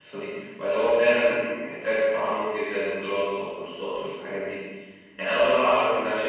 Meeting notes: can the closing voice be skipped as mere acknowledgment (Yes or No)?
Yes